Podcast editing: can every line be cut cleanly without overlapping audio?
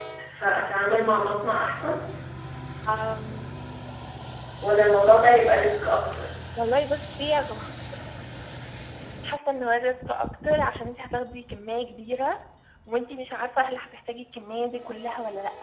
Yes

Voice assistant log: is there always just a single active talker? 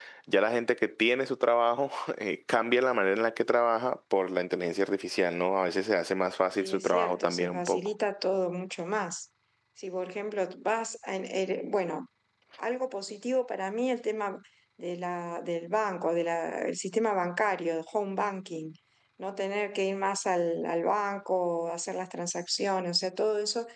No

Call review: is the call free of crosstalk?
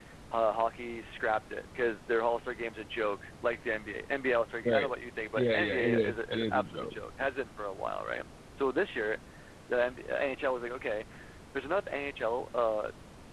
No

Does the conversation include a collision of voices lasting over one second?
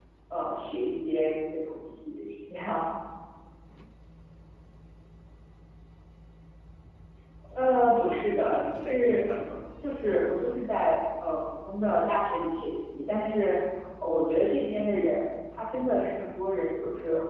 Yes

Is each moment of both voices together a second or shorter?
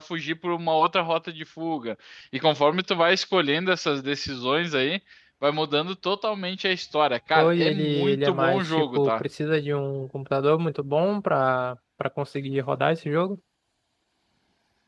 No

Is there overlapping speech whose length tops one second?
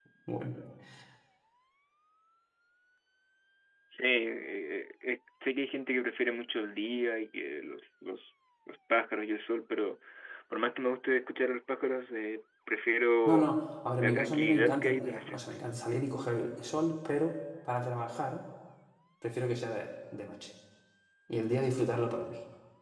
Yes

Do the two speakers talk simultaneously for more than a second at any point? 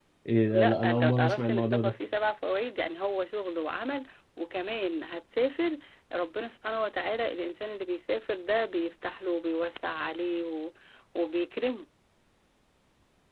Yes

